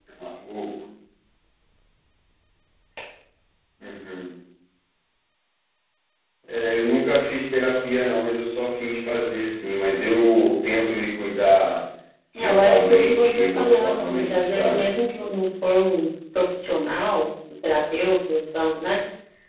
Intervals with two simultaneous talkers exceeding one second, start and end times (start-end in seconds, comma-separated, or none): 12.4-14.9